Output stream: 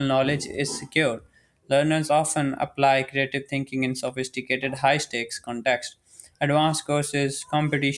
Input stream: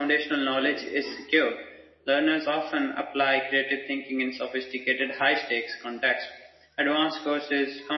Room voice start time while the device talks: none

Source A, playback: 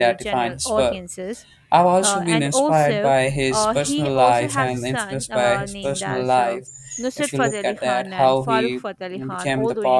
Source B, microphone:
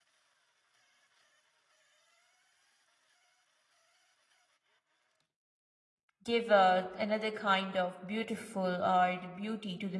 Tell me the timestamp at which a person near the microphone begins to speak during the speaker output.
6.2 s

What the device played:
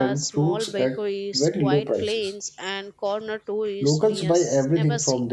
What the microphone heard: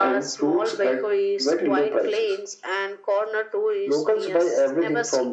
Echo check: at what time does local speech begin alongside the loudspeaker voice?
none

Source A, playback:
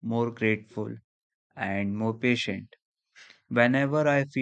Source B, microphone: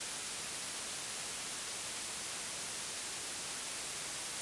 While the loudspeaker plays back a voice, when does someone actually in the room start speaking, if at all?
none

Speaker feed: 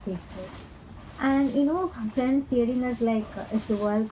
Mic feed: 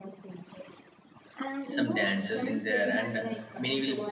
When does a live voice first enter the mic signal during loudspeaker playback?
1.7 s

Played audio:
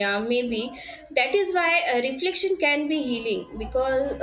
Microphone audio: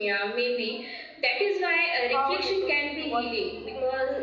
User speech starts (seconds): 2.1 s

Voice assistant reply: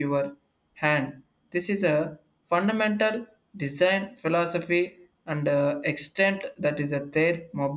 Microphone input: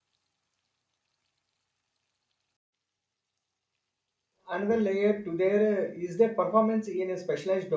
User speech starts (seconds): 4.5 s

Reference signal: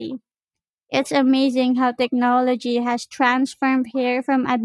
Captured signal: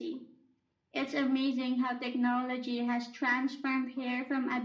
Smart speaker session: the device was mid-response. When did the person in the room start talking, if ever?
none

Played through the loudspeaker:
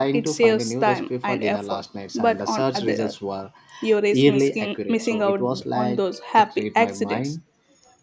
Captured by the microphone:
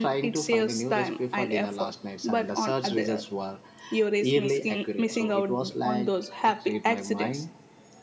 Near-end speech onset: none

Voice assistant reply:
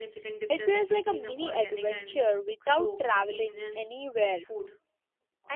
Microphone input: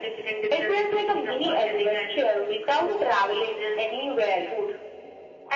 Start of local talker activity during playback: none

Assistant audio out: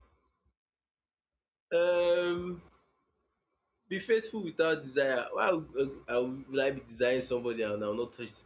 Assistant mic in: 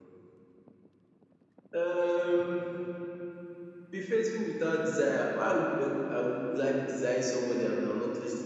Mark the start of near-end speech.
none

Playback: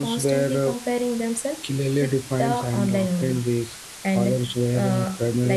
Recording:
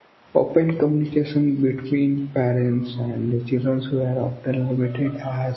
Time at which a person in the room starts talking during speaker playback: 0.3 s

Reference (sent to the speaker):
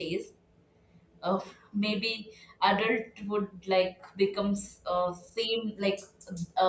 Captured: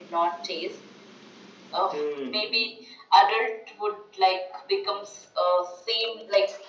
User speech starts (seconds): 1.9 s

